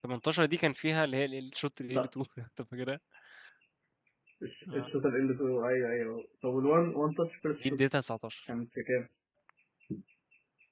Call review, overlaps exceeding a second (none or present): none